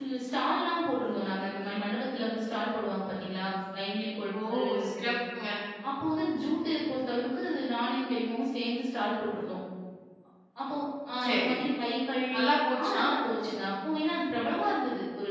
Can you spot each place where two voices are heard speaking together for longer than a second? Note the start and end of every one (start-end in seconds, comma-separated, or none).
none